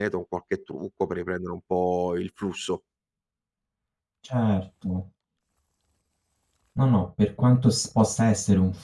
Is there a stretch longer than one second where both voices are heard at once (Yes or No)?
No